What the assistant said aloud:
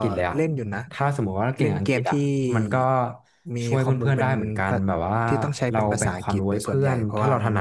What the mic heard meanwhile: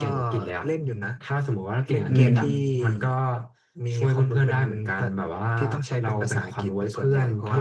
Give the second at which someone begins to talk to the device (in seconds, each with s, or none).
2.1 s